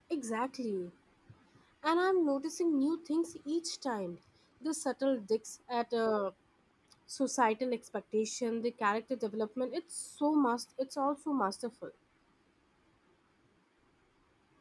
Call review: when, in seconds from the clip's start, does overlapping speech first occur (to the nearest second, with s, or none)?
none